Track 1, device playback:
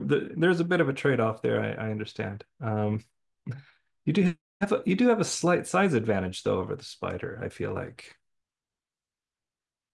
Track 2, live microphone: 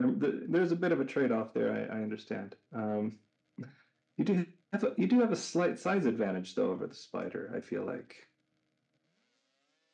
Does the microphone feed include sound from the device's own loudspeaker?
Yes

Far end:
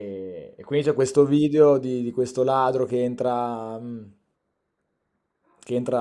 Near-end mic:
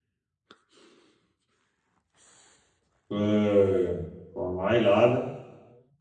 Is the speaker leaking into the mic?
No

